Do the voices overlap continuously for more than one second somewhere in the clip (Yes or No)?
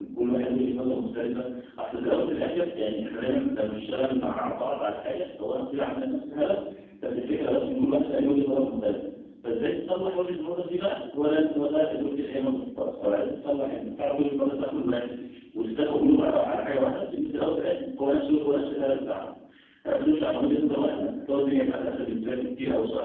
No